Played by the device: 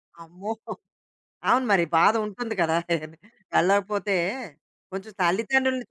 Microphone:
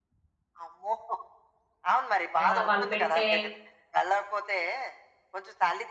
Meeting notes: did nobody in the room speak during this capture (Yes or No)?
No